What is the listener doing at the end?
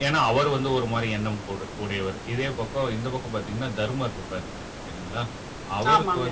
listening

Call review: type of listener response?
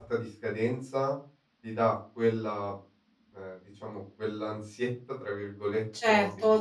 taking over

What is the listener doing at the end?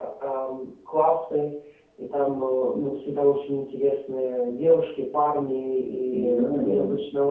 listening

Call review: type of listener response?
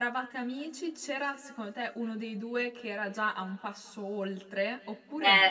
taking over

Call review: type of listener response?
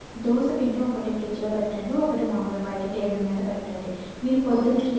listening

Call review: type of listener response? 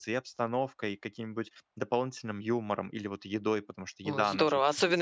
taking over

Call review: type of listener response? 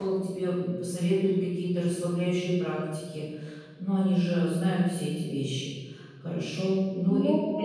listening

